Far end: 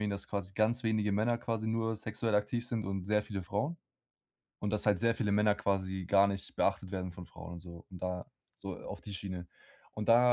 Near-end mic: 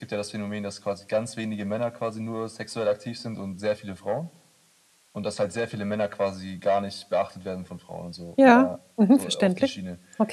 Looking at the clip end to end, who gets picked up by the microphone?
both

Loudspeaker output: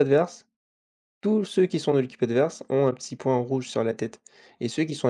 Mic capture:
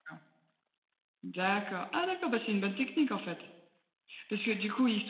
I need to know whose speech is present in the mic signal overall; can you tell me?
user only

